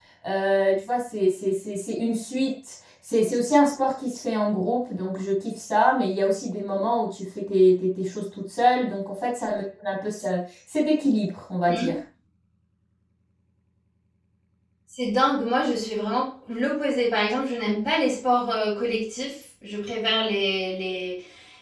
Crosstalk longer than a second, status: none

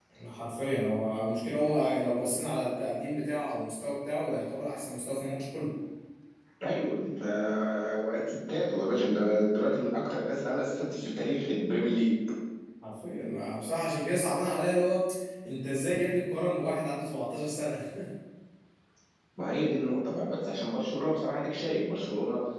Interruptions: none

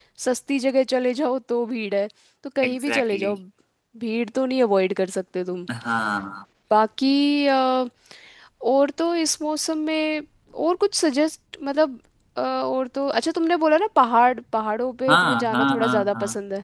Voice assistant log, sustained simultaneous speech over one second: present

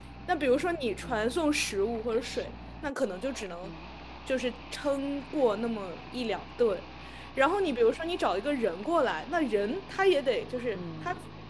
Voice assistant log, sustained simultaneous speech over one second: none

